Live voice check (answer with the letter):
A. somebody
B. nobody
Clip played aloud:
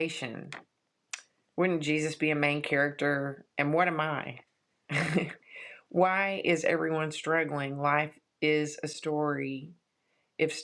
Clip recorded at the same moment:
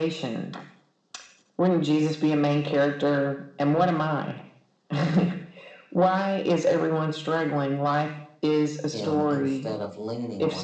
A